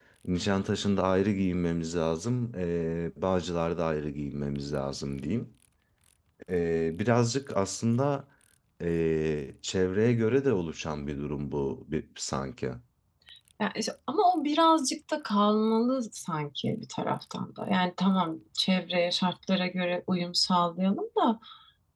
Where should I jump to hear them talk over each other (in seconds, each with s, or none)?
none